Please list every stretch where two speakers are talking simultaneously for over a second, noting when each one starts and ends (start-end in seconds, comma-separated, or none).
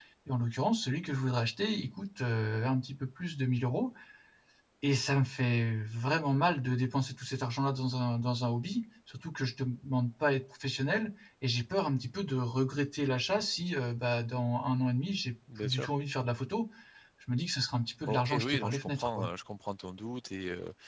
18.1-19.3